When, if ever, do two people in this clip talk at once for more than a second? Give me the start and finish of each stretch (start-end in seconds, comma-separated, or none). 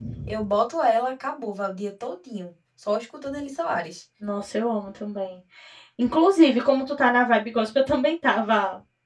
none